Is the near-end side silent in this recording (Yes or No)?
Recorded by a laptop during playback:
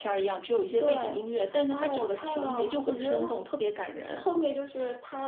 Yes